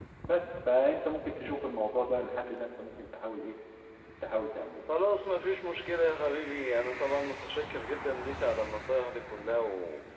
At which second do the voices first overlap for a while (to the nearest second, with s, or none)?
none